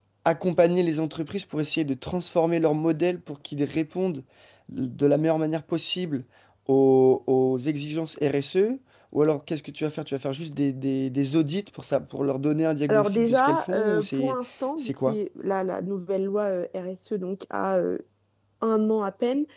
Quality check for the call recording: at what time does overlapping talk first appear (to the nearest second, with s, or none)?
13 s